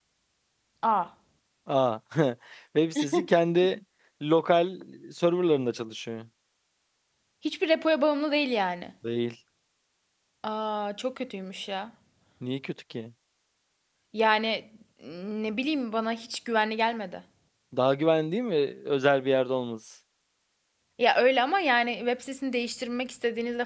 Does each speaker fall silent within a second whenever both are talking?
Yes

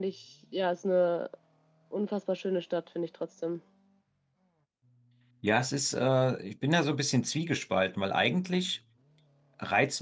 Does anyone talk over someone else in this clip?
No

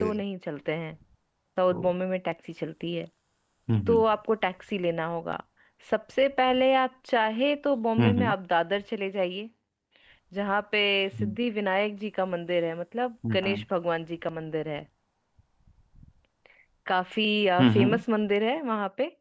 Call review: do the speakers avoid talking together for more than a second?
Yes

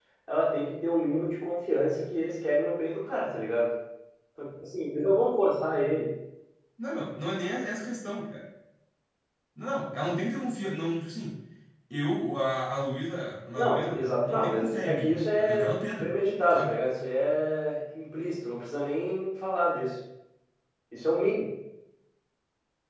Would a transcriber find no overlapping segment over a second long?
No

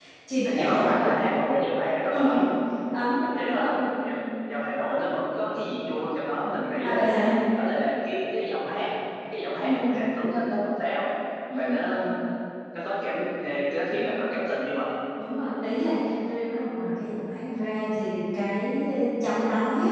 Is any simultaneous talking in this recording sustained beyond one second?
No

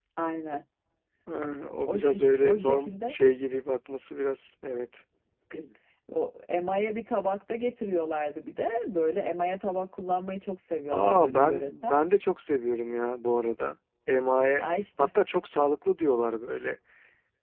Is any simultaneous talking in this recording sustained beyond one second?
Yes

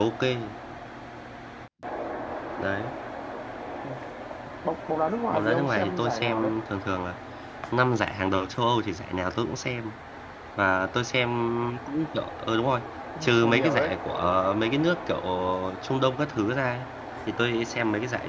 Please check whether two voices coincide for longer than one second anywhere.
Yes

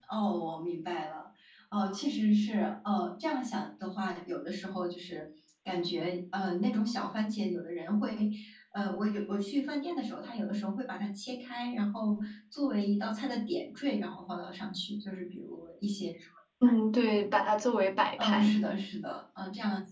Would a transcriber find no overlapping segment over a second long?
Yes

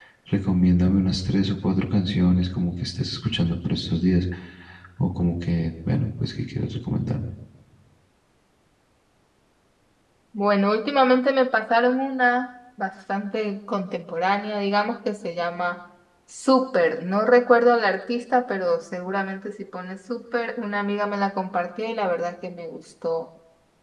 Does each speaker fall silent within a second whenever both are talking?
Yes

